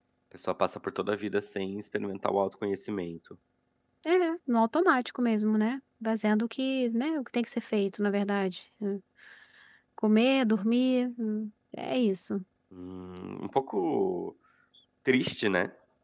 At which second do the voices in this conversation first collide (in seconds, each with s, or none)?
none